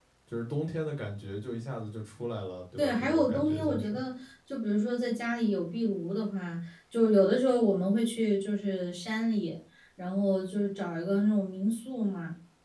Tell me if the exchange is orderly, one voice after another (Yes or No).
No